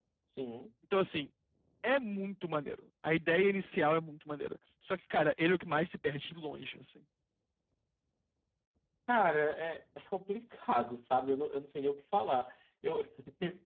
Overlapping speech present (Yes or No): No